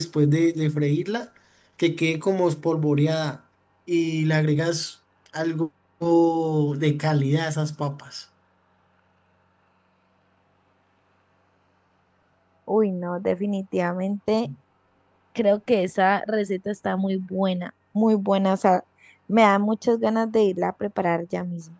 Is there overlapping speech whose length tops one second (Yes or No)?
No